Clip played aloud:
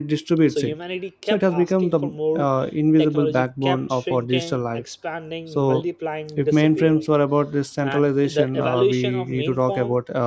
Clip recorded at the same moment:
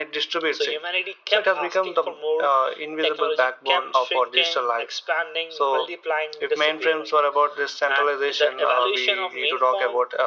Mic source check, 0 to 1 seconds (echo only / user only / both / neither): echo only